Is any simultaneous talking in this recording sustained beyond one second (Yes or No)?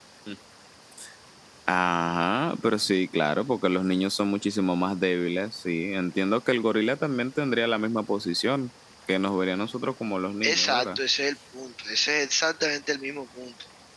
No